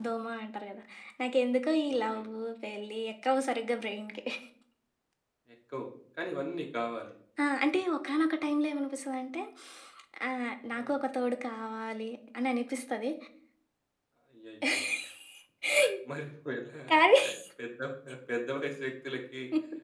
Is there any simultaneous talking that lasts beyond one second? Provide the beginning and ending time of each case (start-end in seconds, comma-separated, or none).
none